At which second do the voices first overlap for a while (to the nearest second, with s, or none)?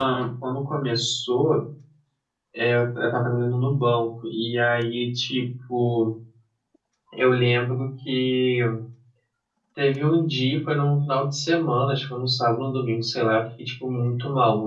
none